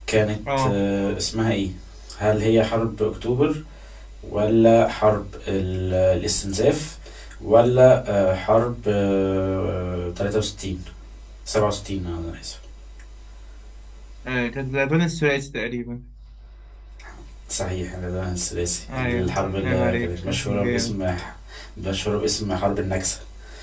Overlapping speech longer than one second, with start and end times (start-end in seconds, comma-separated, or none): 18.9-20.9